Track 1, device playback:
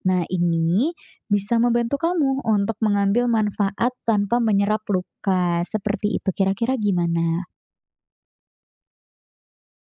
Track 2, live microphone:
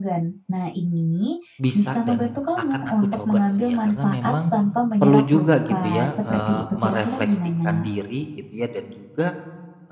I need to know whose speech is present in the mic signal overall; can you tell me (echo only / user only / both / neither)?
both